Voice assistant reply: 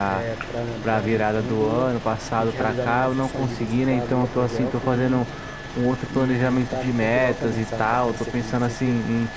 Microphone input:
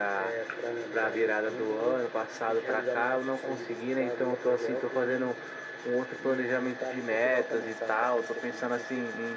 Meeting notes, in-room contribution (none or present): none